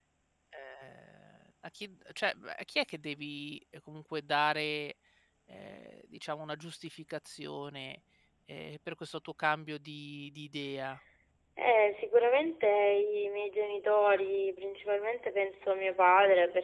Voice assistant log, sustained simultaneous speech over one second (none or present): none